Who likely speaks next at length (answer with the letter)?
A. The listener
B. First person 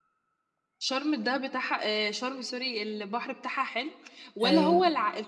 B